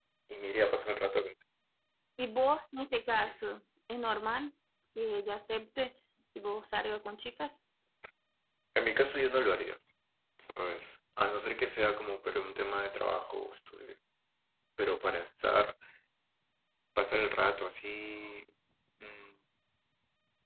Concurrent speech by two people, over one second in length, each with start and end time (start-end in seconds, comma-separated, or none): none